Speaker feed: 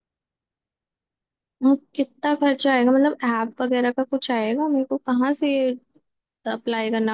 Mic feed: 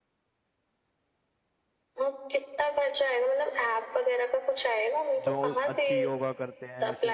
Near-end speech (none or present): present